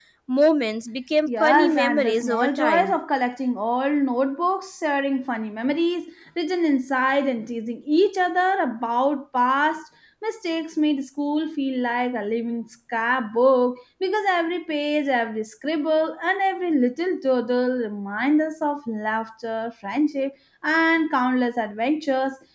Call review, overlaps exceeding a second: present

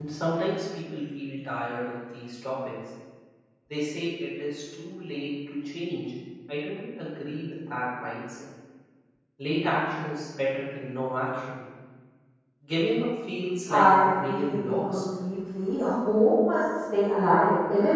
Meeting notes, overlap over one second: present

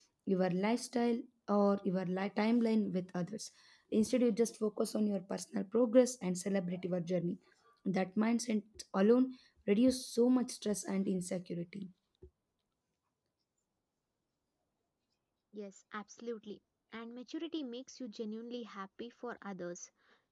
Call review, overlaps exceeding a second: none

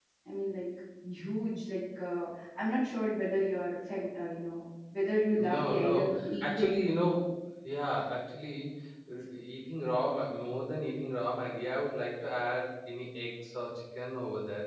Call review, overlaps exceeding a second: present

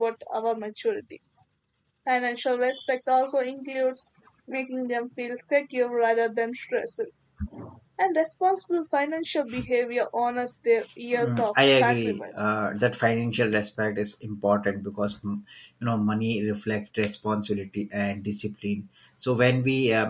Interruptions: present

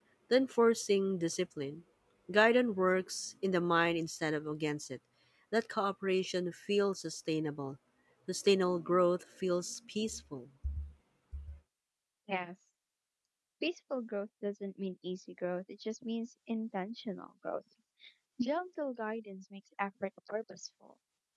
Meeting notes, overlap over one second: none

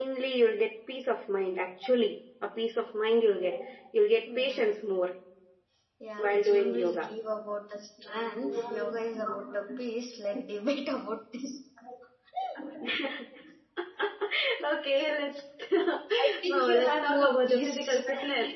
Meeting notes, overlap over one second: present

